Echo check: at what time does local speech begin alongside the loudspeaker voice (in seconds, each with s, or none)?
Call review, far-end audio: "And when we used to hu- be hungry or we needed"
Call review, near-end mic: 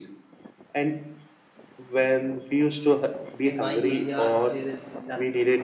3.4 s